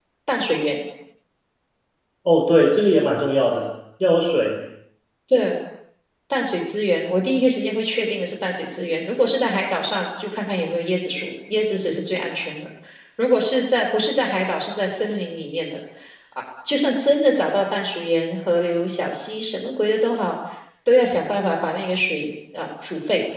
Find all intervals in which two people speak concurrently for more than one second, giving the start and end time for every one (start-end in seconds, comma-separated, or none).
none